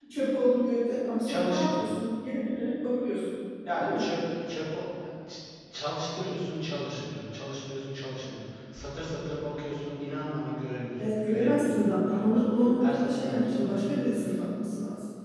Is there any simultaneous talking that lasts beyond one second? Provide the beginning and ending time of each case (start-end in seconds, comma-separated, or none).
11.0-13.9